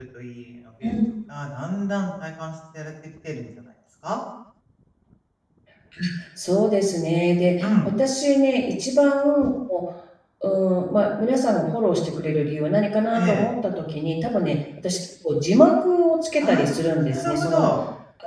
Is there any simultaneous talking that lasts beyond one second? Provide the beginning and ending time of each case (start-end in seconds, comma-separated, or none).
16.4-17.6